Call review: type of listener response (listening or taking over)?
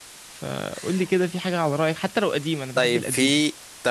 taking over